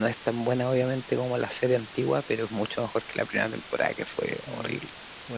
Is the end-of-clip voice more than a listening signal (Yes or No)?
Yes